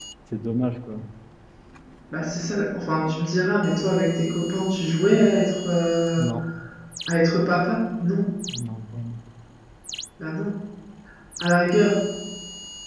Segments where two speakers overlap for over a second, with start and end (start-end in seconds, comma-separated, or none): none